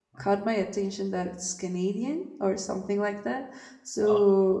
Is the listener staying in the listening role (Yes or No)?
Yes